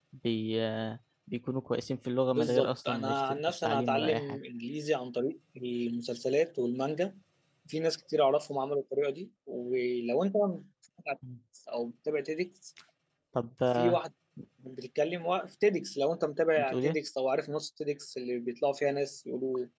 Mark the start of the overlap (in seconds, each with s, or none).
2.3 s